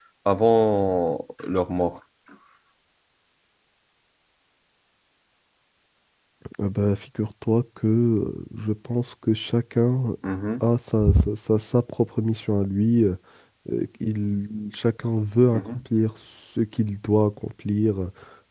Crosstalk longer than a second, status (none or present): none